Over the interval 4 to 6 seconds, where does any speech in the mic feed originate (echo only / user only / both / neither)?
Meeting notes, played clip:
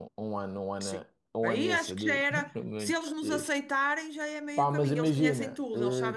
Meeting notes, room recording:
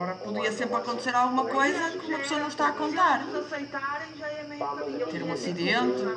both